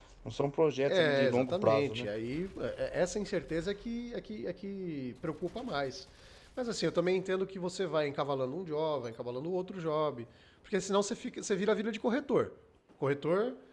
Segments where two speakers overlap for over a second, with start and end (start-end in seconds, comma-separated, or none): 0.8-2.1